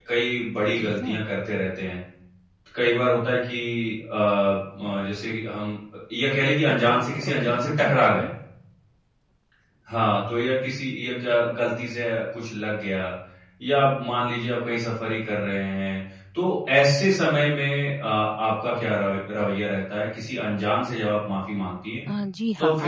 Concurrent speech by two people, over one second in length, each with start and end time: 6.7-8.2

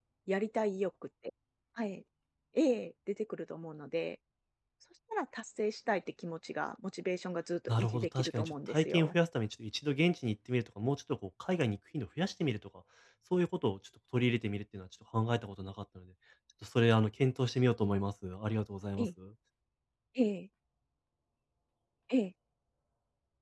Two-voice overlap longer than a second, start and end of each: 7.7-9.2

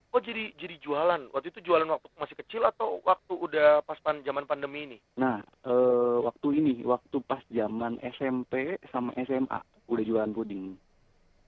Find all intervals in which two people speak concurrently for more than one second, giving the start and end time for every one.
none

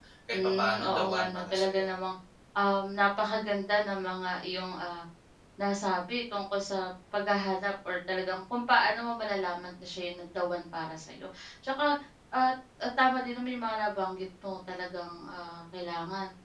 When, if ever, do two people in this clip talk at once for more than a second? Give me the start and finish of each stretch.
0.6-1.9

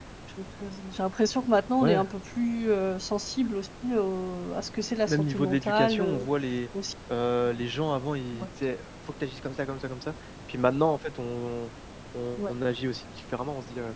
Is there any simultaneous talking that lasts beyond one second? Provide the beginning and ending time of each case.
5.1-6.3

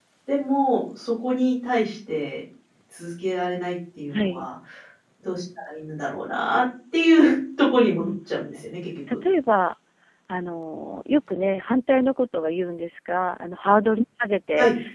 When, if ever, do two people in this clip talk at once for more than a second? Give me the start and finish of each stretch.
none

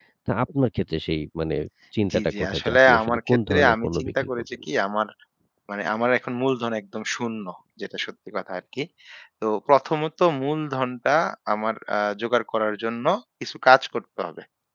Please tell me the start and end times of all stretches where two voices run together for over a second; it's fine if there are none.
2.1-4.4

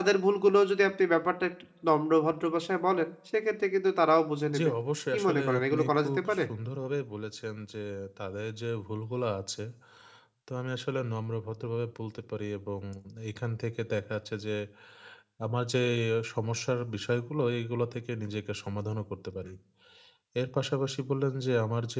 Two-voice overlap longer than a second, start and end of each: 5.1-6.4

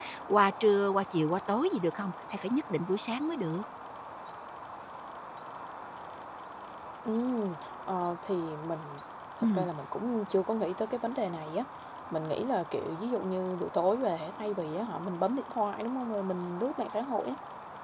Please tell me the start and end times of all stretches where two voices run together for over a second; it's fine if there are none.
none

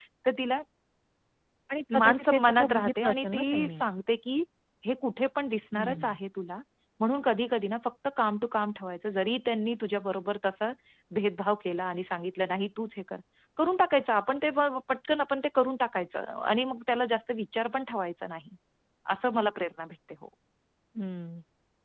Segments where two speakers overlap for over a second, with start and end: 2.0-3.8

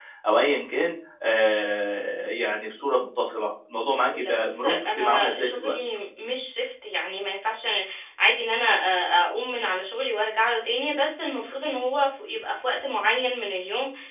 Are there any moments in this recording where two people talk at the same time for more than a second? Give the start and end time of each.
4.1-5.8

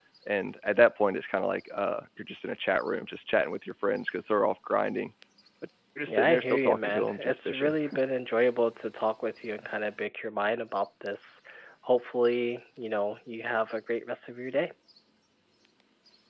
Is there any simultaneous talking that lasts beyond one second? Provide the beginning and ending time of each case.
6.1-7.8

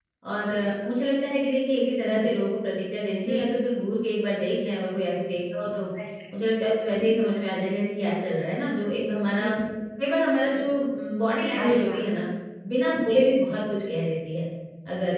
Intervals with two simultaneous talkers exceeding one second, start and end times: none

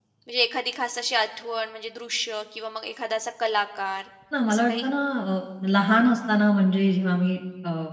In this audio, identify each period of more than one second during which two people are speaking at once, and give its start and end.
none

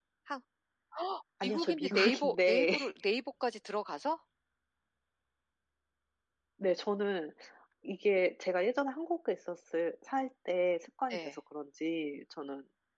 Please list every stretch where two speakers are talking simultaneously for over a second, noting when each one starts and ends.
1.4-2.9

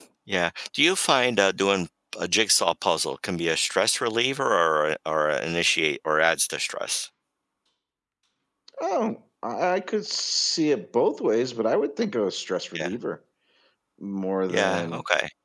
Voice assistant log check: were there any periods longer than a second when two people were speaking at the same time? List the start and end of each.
none

